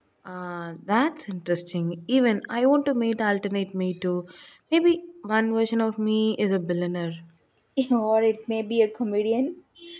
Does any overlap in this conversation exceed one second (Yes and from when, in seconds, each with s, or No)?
No